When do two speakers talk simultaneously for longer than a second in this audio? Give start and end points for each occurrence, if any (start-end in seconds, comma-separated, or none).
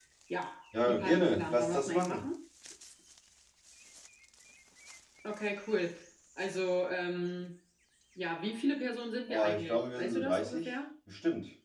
0.9-2.2, 9.3-10.8